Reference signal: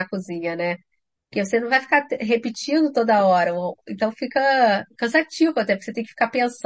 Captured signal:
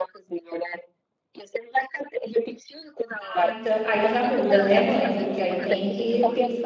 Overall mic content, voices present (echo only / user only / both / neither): both